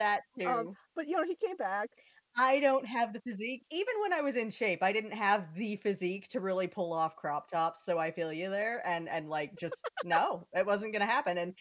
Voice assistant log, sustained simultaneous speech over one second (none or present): none